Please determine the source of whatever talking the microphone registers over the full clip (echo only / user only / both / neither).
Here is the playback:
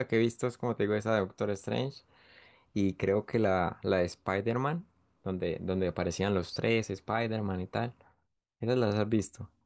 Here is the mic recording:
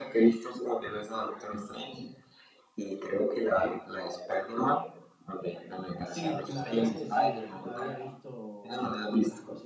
both